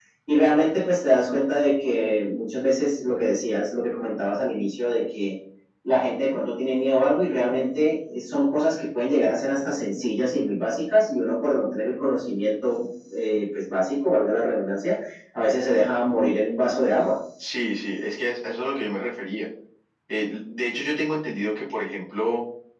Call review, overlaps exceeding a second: none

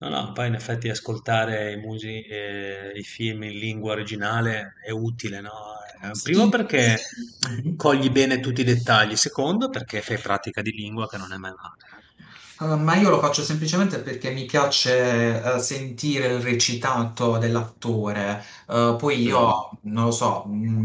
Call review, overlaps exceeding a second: none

